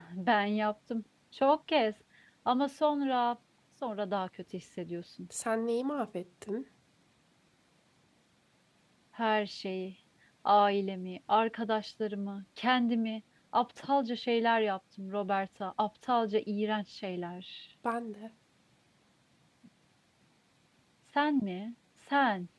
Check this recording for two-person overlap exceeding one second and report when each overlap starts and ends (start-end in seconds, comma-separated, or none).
none